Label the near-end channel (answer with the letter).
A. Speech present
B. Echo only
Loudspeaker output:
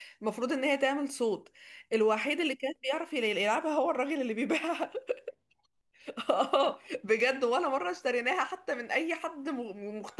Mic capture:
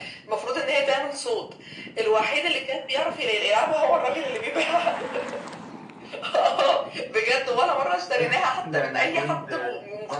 A